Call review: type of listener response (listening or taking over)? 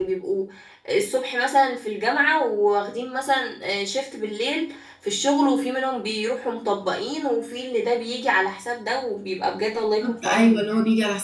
taking over